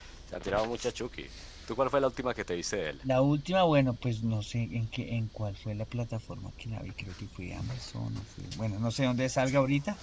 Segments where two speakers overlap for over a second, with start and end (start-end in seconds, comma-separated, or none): none